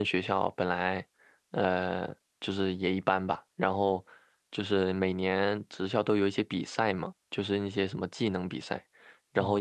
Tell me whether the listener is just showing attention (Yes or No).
Yes